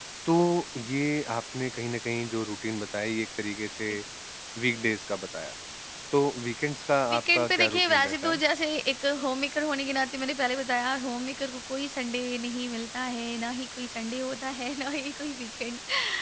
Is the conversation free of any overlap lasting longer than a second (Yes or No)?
No